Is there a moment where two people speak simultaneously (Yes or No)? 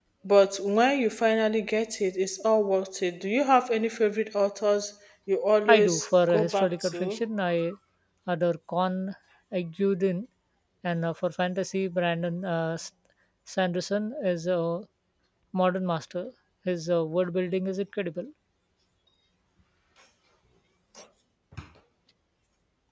Yes